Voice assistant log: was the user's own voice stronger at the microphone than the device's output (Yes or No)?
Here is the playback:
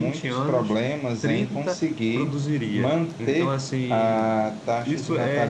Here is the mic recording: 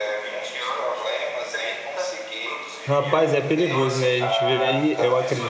Yes